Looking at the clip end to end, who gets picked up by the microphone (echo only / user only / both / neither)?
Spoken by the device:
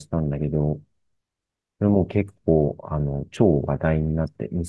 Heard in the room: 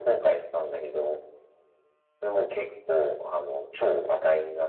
echo only